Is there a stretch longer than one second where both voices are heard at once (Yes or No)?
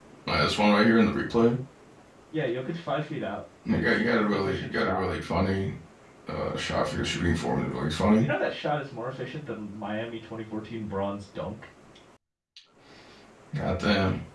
Yes